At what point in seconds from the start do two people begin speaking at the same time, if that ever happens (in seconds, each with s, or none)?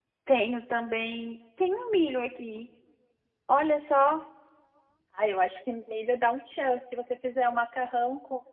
none